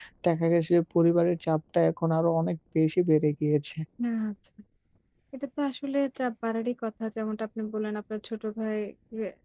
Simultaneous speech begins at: none

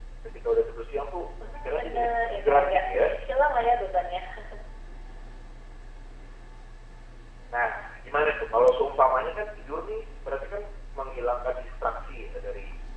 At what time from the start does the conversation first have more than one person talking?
1 s

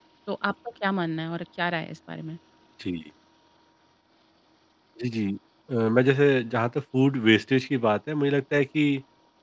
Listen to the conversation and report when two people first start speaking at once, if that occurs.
none

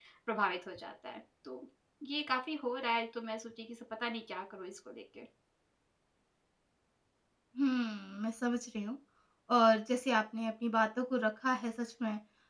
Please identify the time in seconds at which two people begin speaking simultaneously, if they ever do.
none

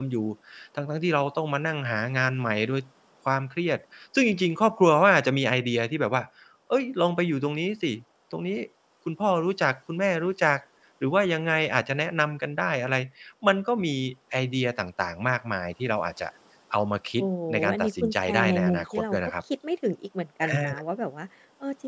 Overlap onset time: 17 s

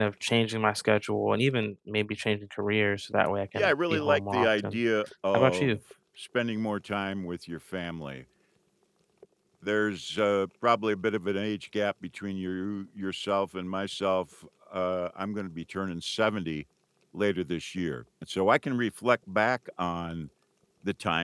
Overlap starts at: 4 s

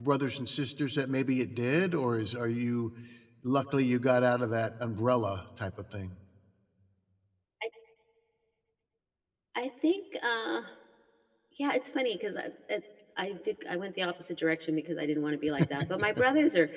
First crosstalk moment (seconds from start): none

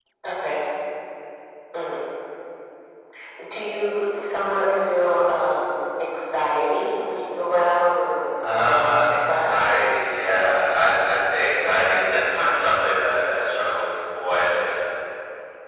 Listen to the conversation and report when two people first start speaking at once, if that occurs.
8 s

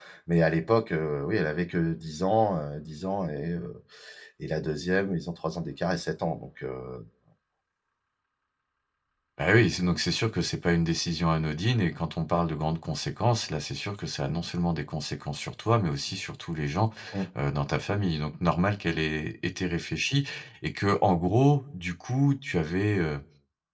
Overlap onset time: none

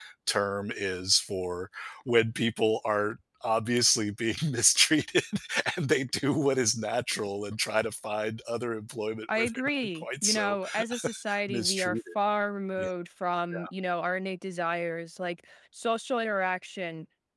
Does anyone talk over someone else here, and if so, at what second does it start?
9 s

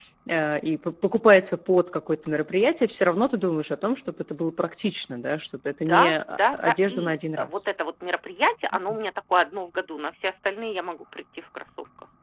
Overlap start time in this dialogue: 6 s

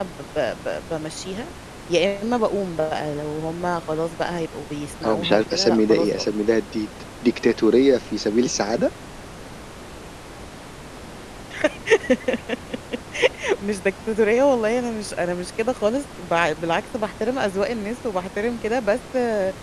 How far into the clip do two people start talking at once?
5 s

